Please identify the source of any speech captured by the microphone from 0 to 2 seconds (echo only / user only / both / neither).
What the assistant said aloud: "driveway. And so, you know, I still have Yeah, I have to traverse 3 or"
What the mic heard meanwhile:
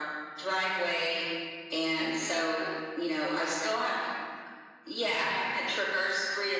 echo only